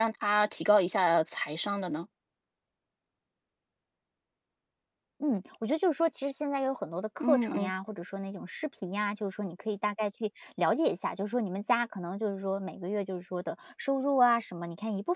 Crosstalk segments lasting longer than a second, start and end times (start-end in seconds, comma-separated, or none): none